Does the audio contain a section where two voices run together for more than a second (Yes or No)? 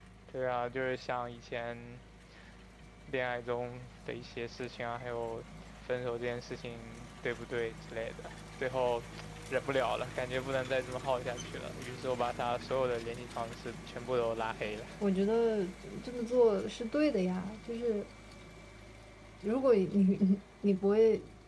No